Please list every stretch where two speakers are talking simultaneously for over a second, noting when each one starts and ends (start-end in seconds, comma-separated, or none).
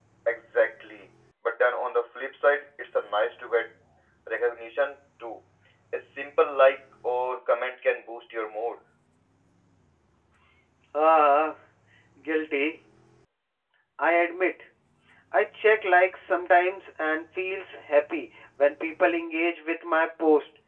none